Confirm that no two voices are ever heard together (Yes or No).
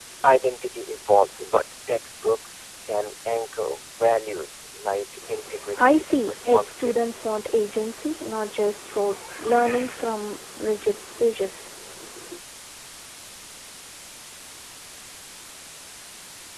No